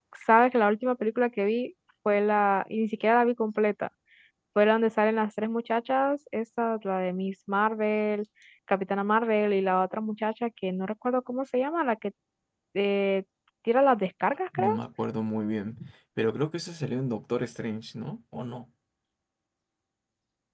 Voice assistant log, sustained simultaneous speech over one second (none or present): none